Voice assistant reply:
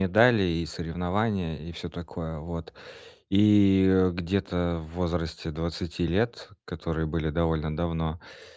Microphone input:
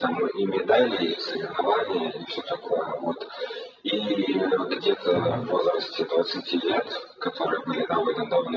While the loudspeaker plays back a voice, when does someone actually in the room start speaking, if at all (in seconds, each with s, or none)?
5.1 s